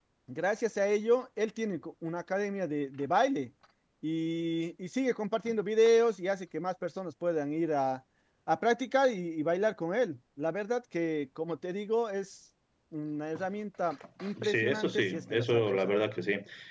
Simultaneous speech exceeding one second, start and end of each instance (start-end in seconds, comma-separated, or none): 14.4-16.0